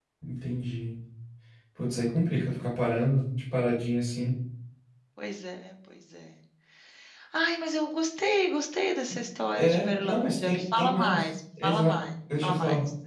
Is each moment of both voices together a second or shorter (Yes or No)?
No